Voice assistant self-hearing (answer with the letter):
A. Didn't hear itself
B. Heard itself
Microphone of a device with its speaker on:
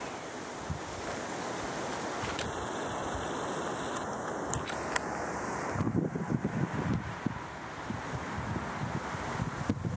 A